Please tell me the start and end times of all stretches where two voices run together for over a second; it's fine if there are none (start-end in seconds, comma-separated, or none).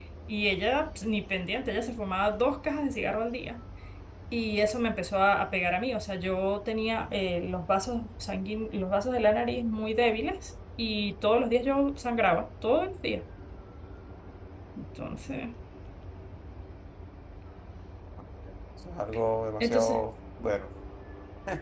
none